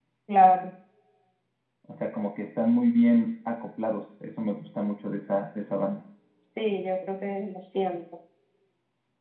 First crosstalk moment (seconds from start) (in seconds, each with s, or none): none